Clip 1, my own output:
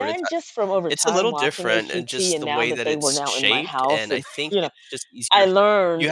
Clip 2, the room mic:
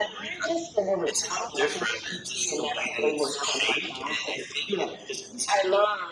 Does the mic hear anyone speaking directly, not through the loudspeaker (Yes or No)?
No